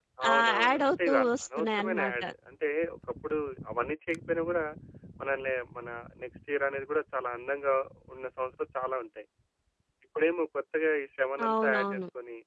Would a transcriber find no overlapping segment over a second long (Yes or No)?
No